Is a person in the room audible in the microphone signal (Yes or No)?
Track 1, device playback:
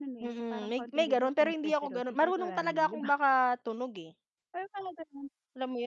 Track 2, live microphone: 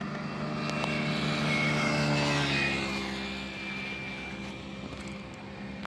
No